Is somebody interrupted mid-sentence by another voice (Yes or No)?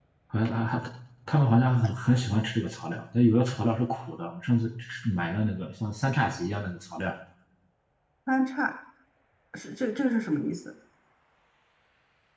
No